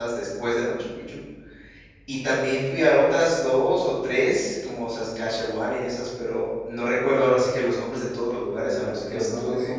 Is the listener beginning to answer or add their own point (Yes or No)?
Yes